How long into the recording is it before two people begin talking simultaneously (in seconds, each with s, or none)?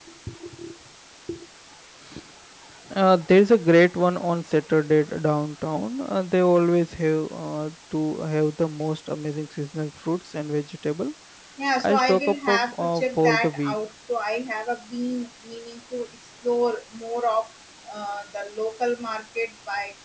11.8 s